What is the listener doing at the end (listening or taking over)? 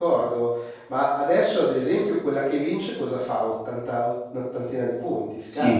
taking over